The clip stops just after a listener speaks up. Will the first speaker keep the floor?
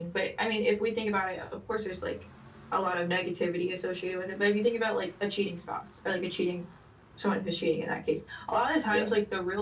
Yes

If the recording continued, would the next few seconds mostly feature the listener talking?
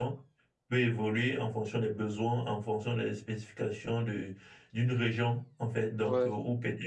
No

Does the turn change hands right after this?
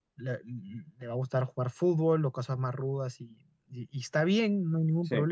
No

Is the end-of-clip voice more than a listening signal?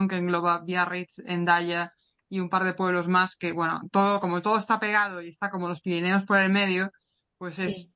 No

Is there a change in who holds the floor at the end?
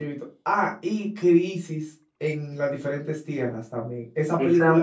Yes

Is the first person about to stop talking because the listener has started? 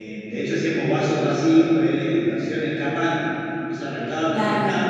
No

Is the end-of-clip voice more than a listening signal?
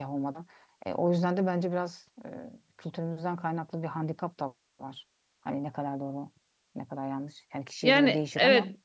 Yes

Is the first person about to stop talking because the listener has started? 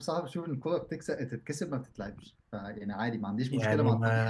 No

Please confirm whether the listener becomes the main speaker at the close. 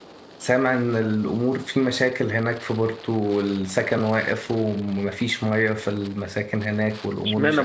Yes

